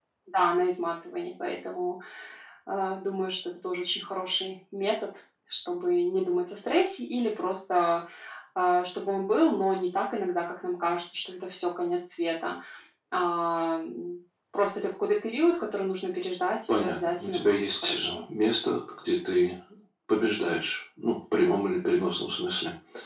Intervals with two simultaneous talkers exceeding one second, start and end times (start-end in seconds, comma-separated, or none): 16.7-18.3